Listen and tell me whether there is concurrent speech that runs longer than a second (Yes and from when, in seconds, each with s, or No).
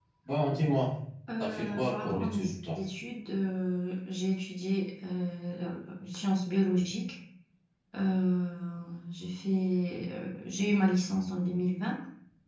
Yes, from 1.4 s